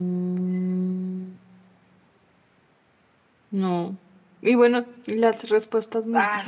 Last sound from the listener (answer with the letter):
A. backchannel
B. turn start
B